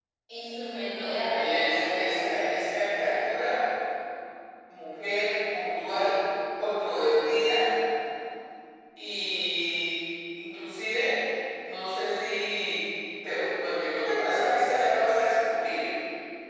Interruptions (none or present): present